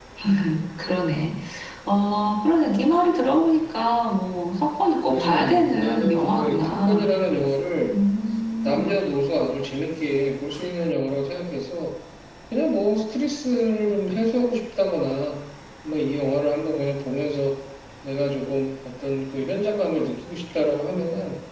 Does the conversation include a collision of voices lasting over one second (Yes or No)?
Yes